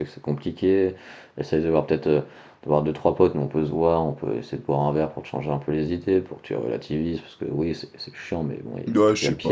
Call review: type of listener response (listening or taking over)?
taking over